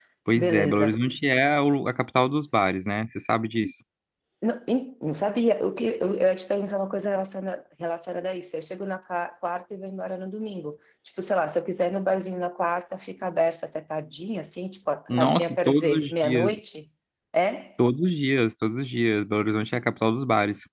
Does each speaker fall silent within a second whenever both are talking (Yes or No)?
No